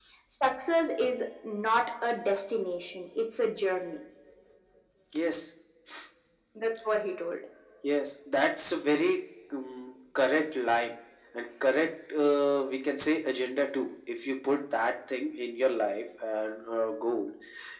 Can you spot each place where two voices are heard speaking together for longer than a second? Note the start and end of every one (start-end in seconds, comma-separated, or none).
none